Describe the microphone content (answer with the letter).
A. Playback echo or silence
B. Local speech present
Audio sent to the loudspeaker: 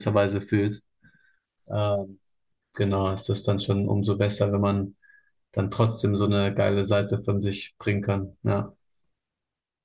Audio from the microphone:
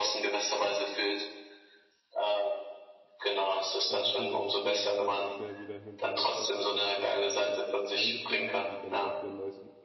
B